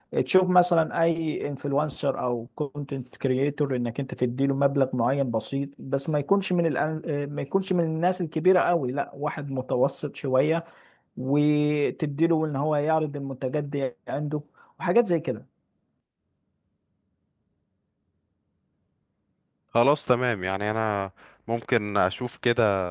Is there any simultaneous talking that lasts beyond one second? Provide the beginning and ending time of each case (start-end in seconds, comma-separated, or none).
none